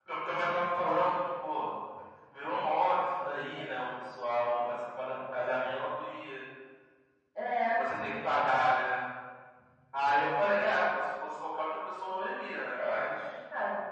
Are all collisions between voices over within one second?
Yes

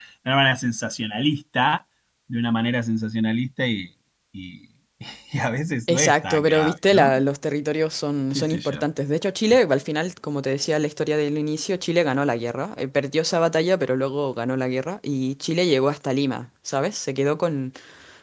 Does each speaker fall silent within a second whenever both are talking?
No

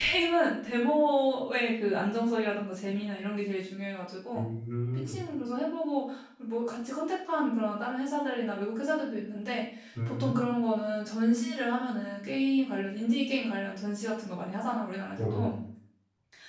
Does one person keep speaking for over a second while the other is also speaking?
No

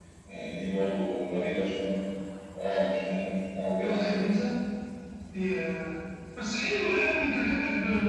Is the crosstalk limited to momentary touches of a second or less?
Yes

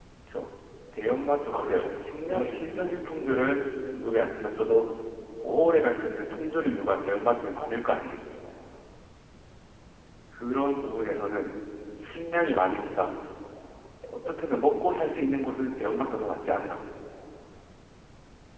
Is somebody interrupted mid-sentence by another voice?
Yes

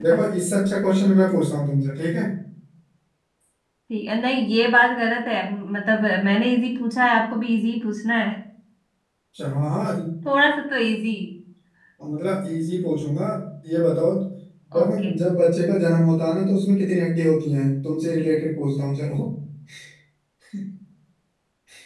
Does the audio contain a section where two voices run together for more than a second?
No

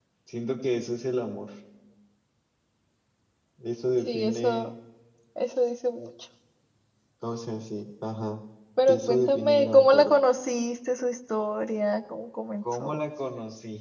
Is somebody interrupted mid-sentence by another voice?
Yes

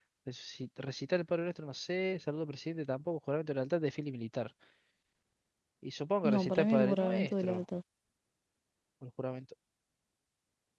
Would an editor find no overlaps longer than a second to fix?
No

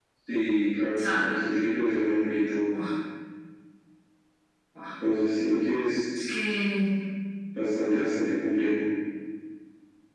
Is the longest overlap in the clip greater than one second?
No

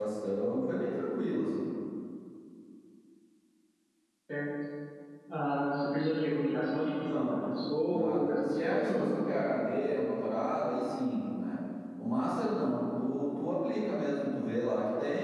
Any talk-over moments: Yes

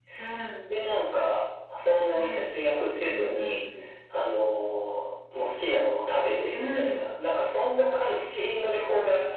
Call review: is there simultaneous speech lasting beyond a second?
No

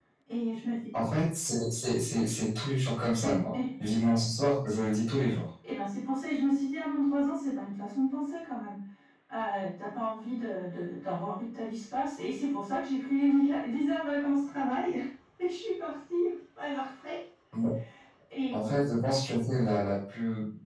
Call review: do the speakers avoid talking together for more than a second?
Yes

